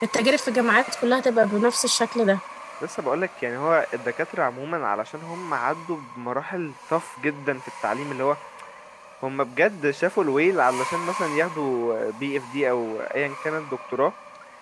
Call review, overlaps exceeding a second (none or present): none